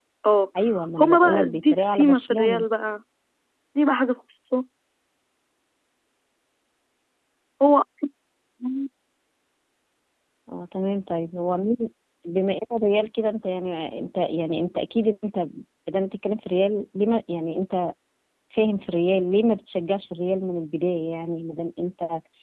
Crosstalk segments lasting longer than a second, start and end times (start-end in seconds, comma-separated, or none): 1.0-2.6